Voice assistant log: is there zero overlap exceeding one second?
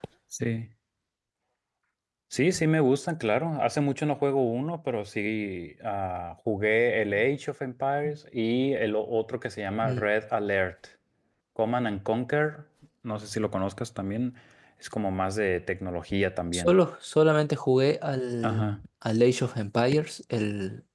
Yes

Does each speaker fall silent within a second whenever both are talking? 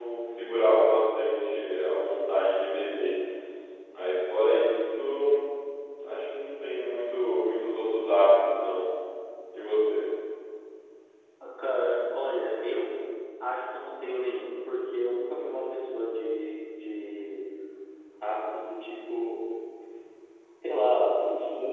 Yes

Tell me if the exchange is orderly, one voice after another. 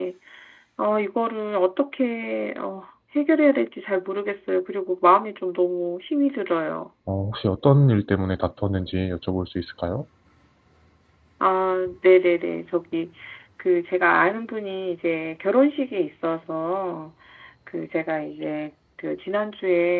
Yes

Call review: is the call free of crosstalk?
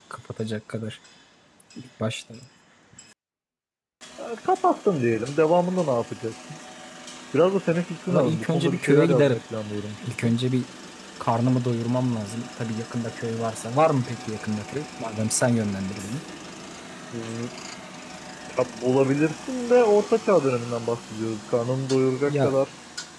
No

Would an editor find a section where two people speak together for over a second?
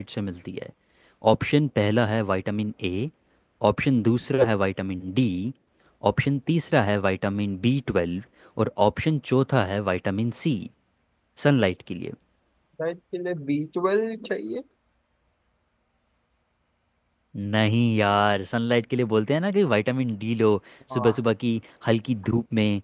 No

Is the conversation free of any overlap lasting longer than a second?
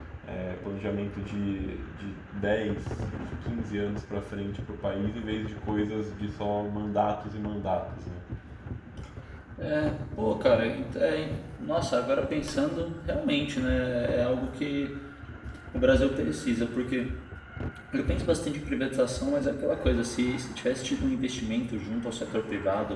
Yes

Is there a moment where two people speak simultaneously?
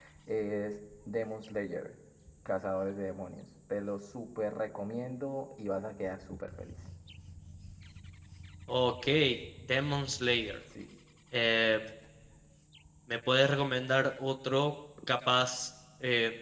No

